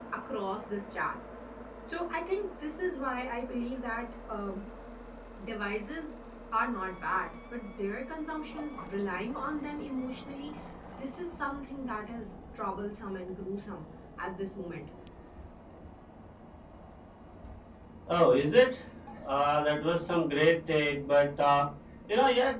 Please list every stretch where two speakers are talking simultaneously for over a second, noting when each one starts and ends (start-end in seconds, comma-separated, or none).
none